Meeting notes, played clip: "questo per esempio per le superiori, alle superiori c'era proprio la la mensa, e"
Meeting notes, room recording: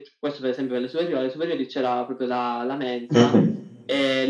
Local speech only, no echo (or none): Mh-mh.